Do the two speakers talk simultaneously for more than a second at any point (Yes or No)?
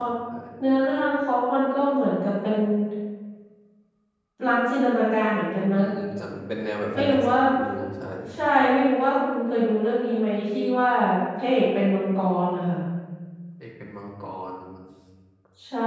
No